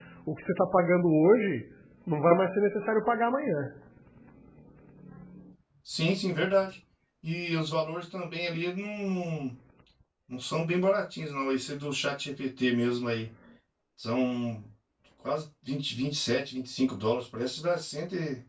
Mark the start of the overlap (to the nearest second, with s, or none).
none